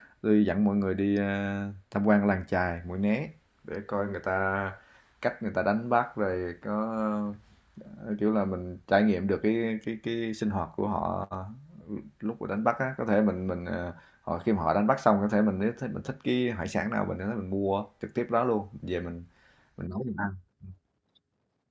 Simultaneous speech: No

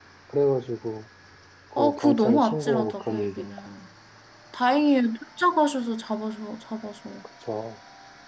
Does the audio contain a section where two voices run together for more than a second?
Yes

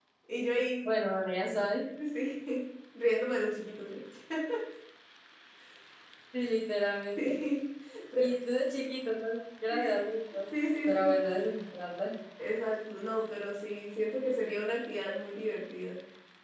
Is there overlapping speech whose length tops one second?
No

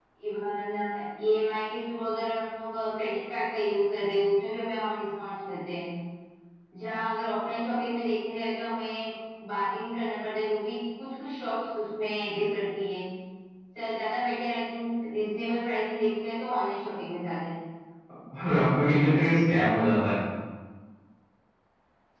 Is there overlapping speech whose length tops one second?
No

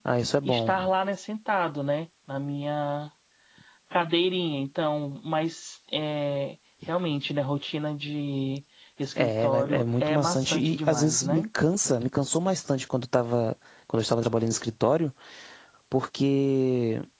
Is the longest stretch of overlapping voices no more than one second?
No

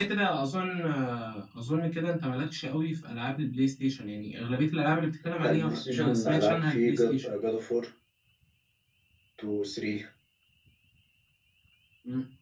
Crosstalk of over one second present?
Yes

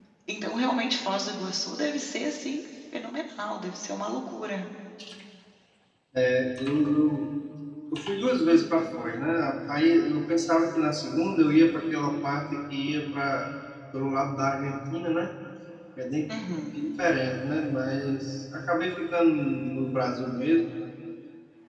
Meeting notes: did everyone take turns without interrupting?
Yes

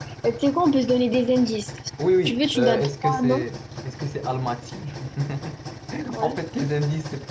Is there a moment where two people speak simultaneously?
Yes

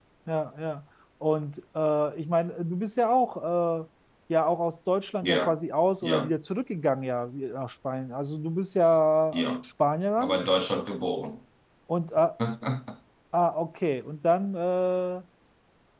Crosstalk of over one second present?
No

